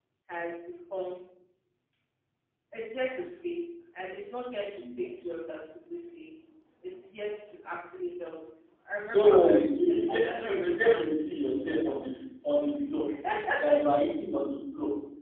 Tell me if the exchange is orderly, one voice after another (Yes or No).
No